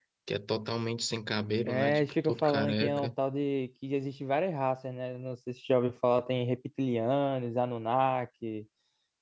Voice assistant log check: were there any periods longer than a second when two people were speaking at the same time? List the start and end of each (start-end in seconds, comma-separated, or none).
1.6-3.1